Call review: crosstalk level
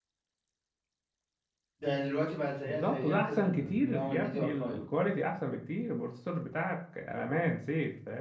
present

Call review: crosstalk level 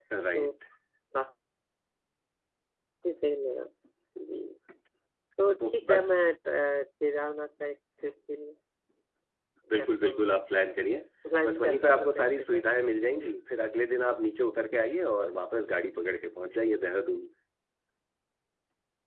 present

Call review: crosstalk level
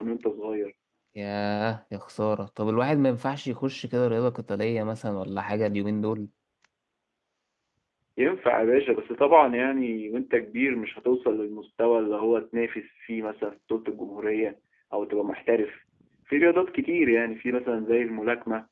none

